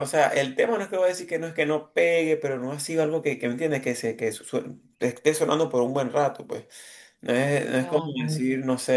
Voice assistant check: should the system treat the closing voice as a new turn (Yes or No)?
No